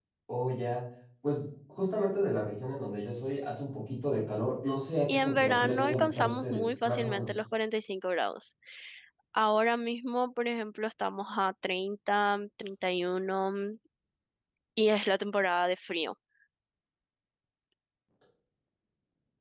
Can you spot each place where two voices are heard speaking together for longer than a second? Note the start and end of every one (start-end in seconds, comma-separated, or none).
5.1-7.3